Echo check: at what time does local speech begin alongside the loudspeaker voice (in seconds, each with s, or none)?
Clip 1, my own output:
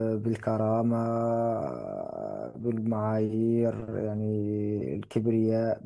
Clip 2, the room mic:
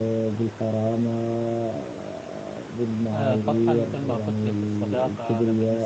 3.1 s